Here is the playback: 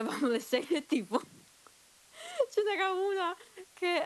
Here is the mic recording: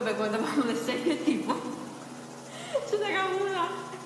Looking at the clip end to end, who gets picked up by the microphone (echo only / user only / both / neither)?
echo only